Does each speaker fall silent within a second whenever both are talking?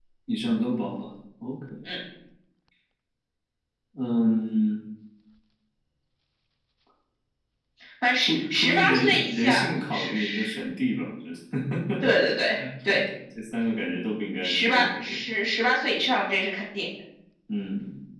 No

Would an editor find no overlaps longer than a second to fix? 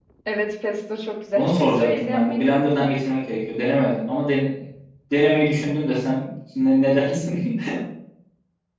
No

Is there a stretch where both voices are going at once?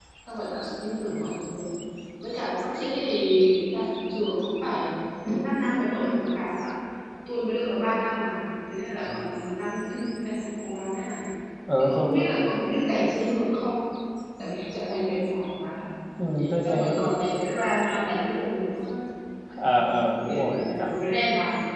Yes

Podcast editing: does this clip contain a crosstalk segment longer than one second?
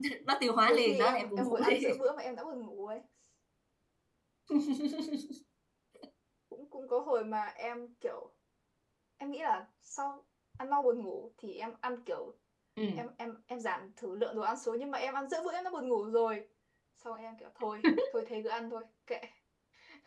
Yes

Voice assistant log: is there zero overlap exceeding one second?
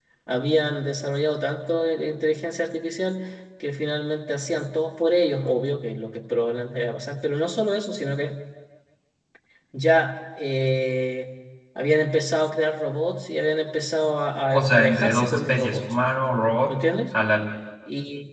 No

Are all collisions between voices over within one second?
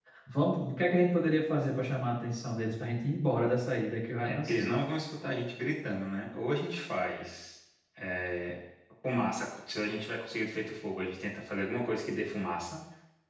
Yes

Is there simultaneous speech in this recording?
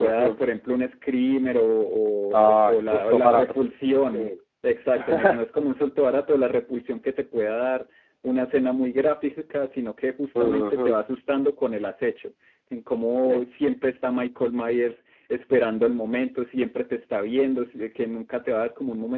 Yes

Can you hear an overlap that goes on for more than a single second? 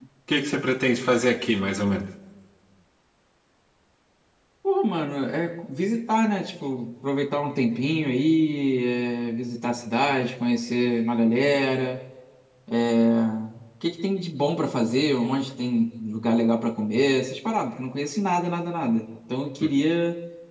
No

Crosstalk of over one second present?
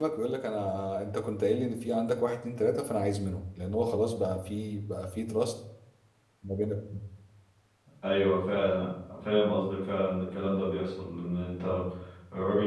No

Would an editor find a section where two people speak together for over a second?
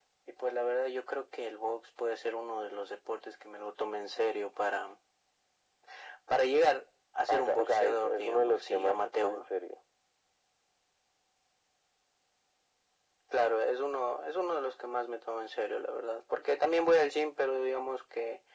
Yes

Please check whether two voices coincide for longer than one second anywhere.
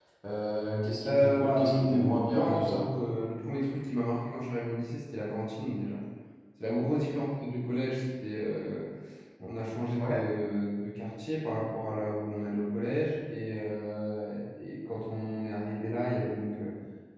Yes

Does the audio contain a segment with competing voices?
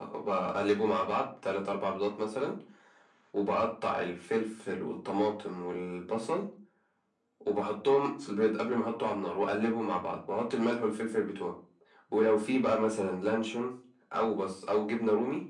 No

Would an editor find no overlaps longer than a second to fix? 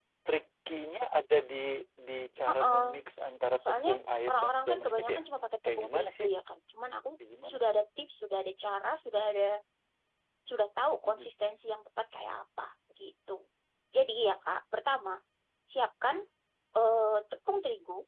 No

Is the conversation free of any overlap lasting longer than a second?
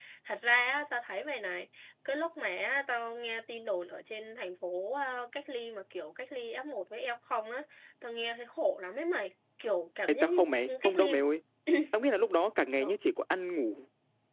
Yes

